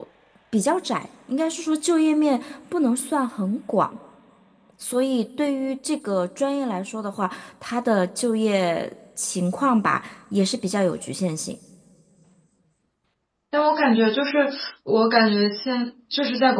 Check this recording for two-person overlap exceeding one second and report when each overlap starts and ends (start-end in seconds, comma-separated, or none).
none